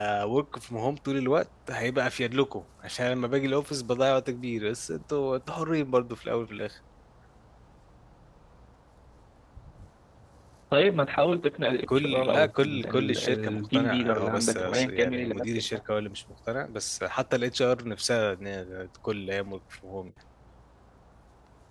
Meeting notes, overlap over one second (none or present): present